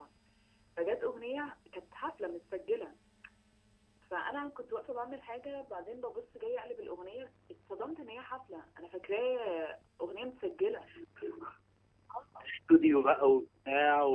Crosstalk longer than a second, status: none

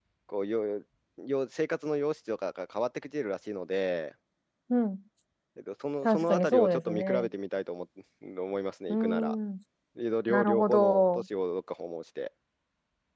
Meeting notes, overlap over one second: present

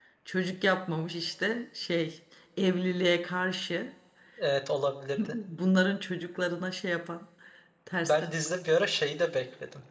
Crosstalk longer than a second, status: none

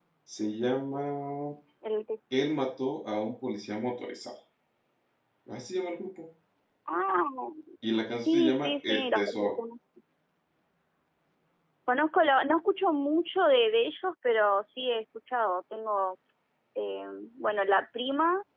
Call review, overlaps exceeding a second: present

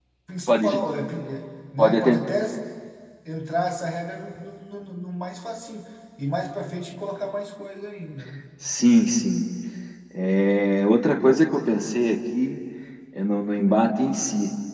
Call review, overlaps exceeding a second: none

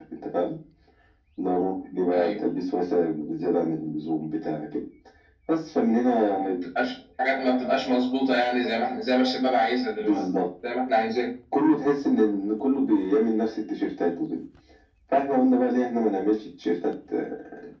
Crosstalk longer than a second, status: none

